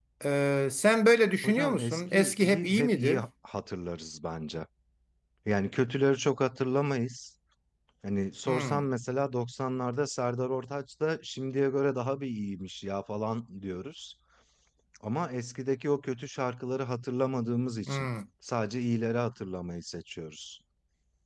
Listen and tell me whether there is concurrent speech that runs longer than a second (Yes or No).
Yes